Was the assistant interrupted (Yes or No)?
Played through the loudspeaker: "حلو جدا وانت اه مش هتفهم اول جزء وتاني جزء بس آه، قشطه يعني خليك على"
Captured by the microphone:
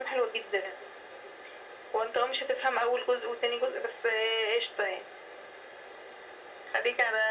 No